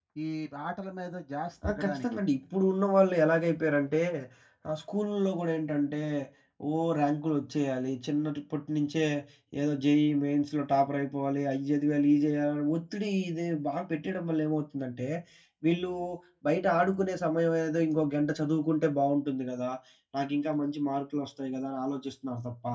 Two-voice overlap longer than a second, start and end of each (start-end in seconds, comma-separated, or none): none